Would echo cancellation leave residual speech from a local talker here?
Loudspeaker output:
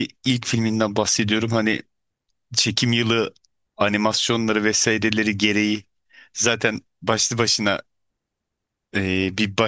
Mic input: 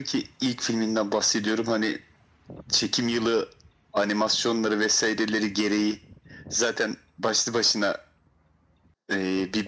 No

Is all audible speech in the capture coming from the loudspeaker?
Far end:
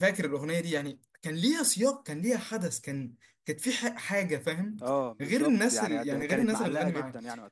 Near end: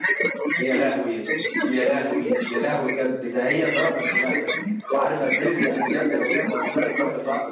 No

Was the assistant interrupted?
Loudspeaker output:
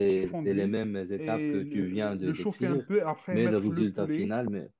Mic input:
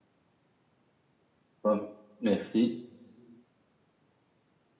Yes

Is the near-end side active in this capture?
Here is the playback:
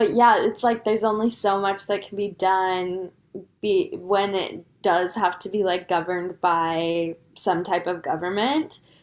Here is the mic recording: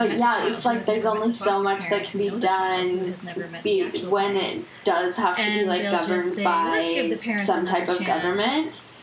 Yes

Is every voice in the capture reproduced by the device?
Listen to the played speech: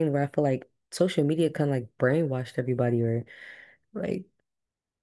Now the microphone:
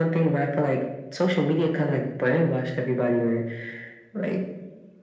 Yes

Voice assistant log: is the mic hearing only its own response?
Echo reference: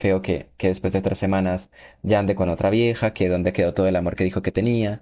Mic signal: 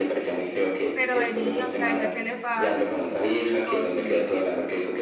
No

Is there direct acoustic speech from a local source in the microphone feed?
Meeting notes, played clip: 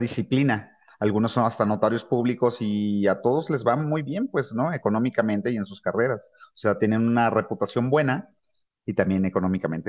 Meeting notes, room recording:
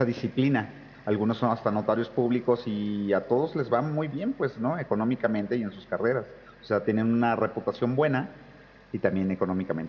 No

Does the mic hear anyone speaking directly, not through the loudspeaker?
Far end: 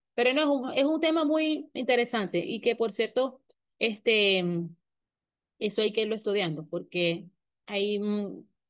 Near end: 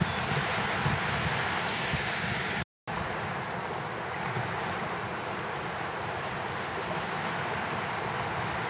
No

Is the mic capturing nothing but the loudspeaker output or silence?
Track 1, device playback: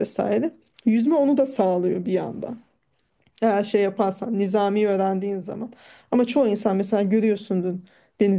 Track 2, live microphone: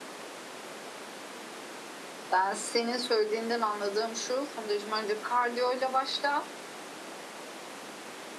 No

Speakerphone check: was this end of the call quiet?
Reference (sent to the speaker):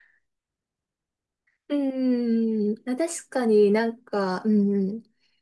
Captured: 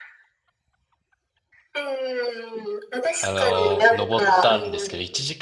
No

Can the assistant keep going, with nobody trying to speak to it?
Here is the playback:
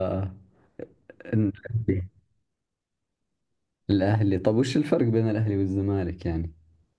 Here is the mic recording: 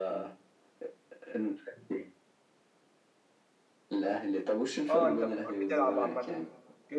No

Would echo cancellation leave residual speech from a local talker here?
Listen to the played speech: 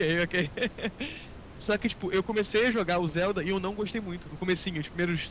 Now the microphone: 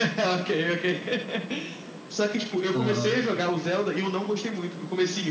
Yes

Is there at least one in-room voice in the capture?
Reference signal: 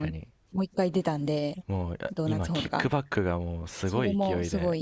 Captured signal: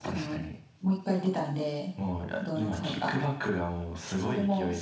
No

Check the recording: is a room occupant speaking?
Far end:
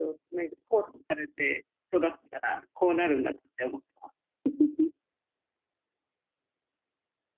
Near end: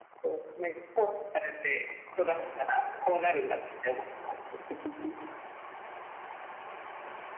No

